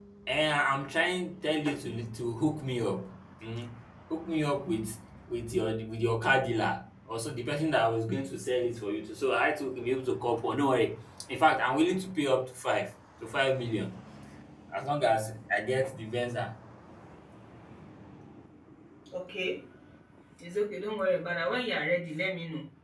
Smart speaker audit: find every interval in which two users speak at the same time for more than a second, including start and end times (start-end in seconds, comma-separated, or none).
none